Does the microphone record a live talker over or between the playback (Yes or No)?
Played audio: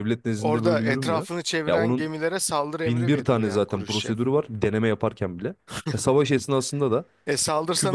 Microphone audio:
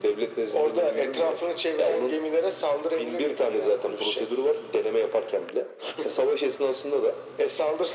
No